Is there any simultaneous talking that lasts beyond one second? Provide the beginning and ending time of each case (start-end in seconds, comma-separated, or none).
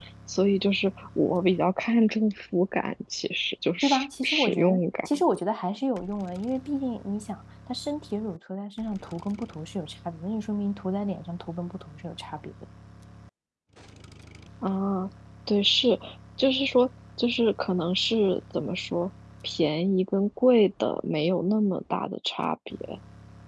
3.8-5.1